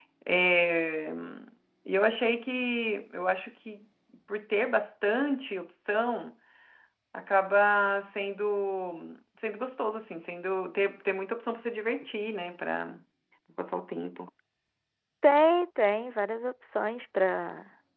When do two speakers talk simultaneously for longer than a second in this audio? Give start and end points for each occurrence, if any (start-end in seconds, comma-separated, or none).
none